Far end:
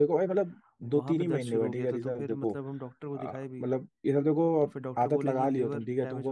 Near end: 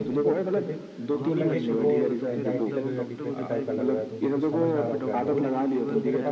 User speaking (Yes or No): Yes